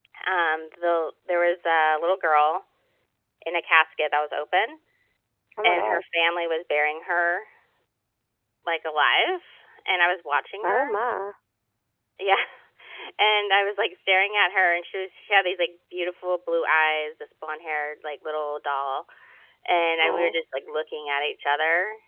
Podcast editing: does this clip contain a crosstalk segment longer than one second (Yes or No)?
No